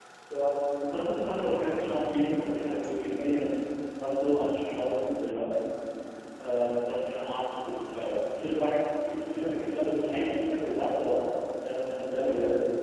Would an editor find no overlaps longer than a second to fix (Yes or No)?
No